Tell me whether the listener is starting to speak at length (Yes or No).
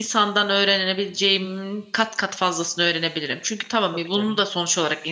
No